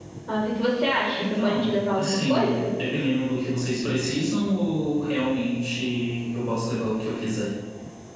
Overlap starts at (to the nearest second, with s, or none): 1 s